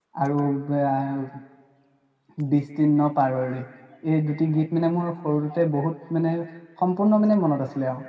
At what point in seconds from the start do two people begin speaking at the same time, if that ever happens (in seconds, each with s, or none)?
none